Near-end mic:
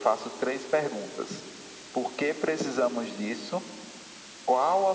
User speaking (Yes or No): No